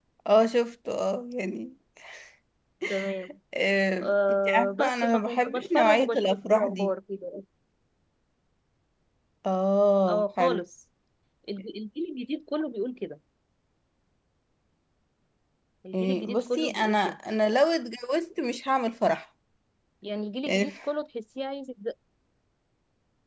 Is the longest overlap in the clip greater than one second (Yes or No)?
Yes